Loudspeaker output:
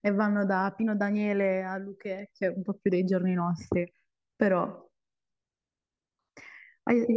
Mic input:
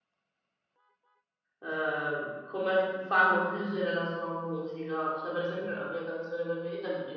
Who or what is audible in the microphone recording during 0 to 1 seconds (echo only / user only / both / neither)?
neither